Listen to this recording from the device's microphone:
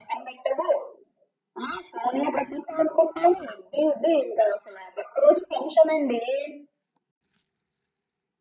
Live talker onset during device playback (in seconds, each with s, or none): none